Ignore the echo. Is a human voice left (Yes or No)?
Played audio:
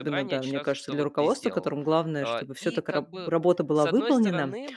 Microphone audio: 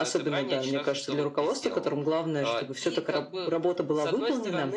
No